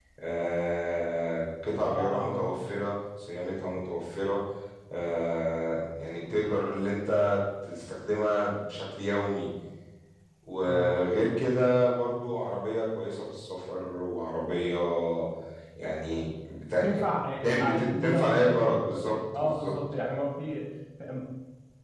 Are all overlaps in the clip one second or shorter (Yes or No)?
No